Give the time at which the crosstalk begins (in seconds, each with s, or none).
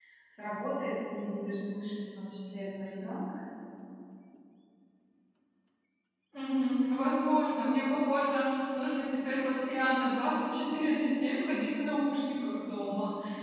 none